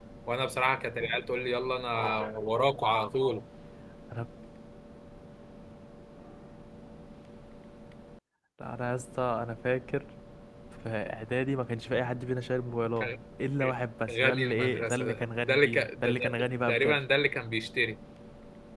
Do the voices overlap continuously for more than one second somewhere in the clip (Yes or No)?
Yes